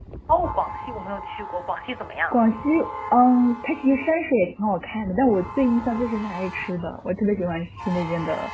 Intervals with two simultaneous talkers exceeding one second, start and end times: none

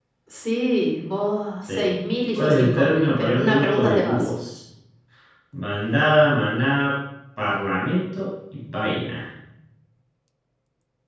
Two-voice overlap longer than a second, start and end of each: 2.4-4.3

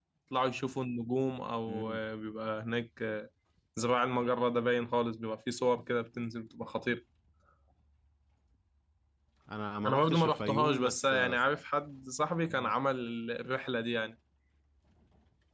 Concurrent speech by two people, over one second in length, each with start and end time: 9.9-11.4

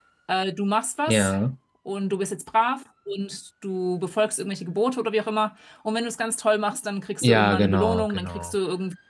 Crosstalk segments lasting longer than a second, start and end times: 7.2-8.6

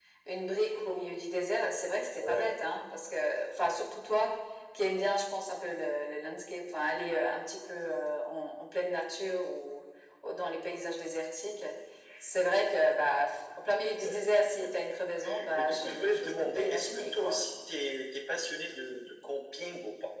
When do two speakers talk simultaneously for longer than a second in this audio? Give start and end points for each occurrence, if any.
15.5-17.4

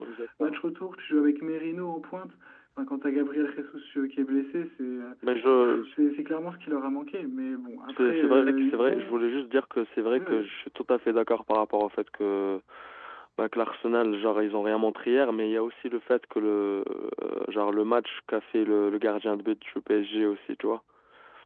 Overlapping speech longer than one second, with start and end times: 7.9-9.2

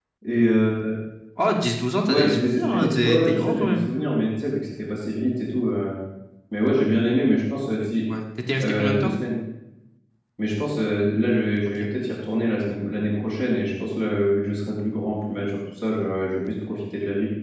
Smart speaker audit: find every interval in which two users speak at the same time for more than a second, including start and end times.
2.1-3.8

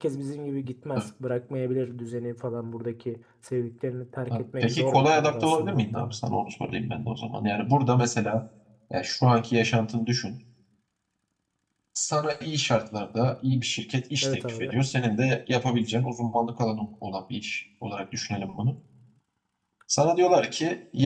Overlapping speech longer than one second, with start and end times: 4.3-6.2

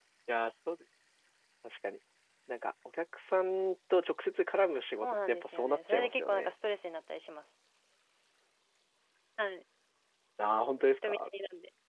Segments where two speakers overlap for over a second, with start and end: 5.0-6.5

